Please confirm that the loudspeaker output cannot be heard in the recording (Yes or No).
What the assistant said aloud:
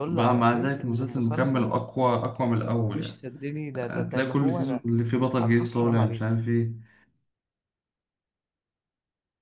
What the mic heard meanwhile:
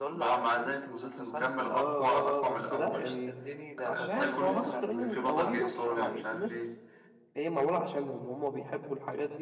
No